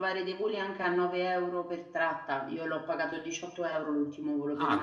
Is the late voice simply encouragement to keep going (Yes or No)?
No